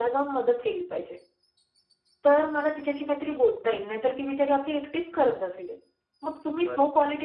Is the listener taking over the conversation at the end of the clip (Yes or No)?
No